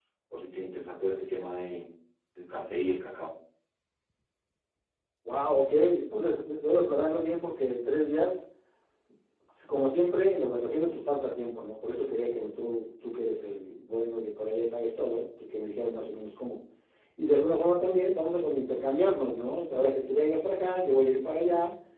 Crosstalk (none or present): none